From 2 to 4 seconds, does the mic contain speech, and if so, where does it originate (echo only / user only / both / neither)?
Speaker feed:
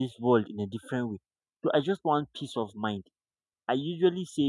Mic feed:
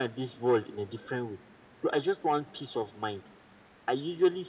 echo only